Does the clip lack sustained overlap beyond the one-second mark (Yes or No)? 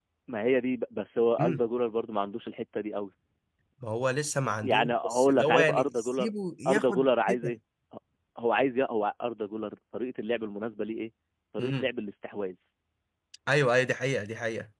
No